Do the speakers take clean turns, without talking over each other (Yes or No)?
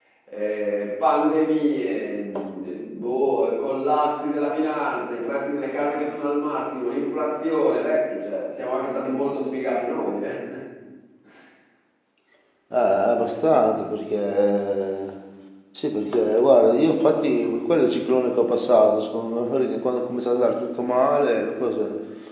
Yes